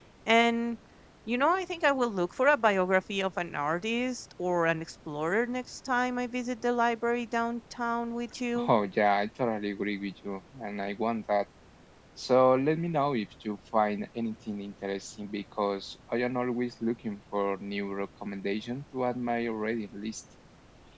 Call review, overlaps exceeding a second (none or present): none